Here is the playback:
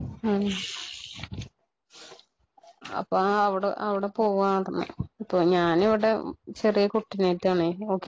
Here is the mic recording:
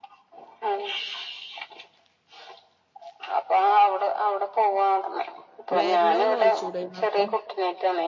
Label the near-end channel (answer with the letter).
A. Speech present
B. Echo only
A